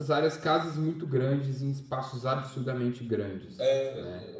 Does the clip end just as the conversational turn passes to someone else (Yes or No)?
Yes